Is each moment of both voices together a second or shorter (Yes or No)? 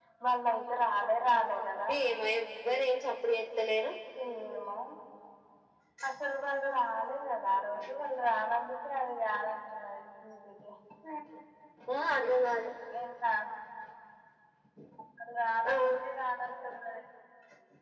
Yes